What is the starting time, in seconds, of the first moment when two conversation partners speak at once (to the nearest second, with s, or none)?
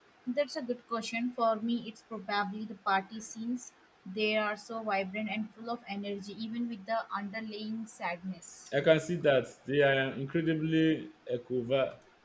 none